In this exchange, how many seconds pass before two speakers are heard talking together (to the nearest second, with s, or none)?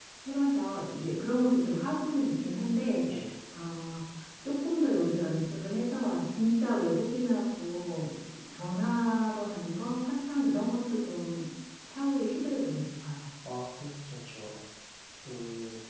none